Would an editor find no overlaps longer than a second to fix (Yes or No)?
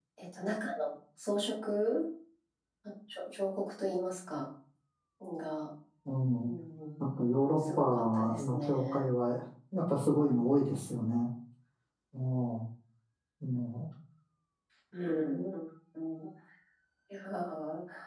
No